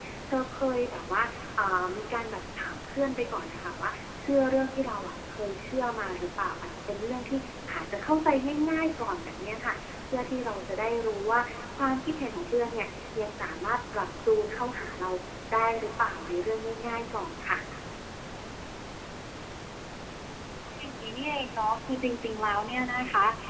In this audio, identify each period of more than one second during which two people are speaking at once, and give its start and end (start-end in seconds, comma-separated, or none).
none